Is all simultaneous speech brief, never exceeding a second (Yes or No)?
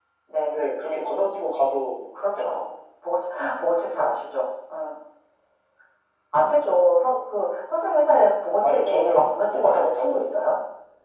No